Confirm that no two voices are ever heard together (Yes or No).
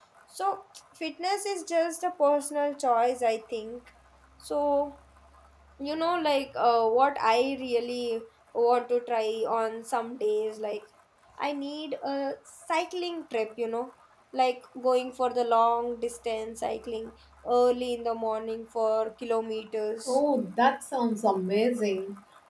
Yes